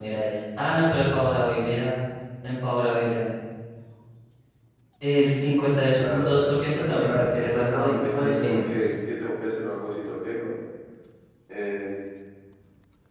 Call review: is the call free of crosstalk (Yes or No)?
No